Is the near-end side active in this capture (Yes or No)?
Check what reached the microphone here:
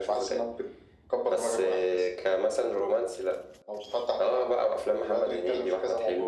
No